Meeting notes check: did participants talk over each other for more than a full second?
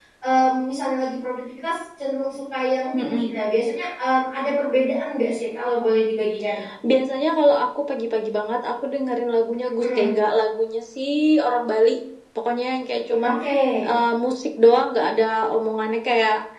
No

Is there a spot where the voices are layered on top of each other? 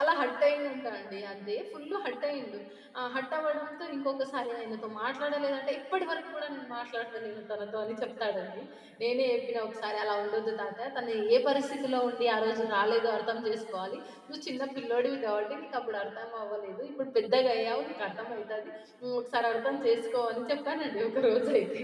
No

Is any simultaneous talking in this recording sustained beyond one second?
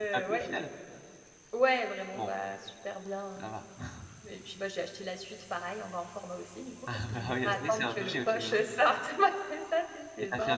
Yes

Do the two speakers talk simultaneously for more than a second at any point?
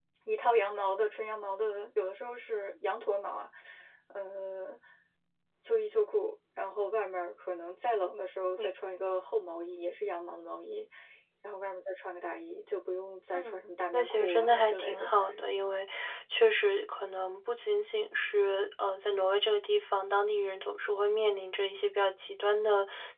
Yes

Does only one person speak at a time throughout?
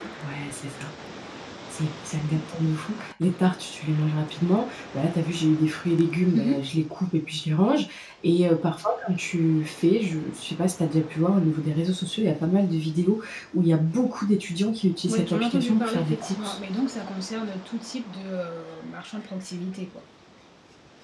No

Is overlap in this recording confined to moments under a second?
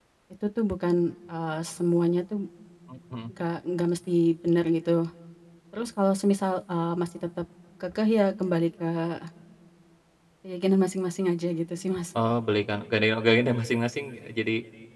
Yes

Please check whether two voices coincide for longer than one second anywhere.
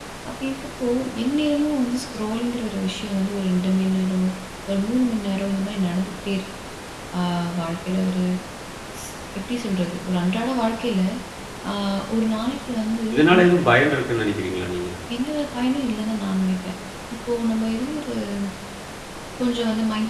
No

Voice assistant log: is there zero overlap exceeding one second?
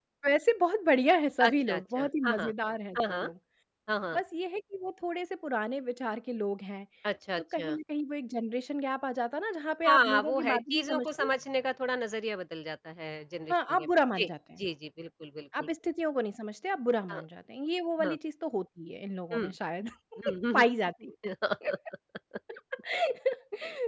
No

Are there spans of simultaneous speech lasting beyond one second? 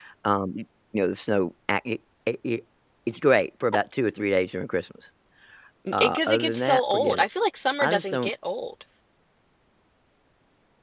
Yes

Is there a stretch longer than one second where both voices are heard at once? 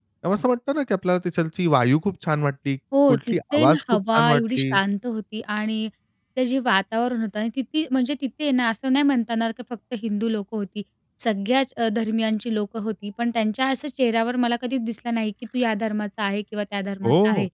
Yes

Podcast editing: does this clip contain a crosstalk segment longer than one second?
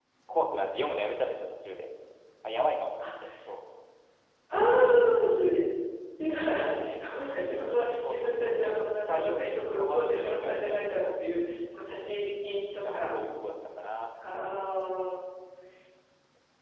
Yes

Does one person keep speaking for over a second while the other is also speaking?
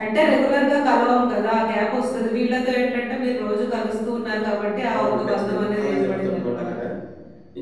Yes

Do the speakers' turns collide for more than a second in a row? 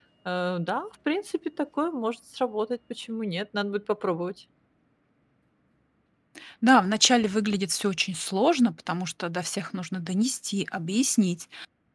No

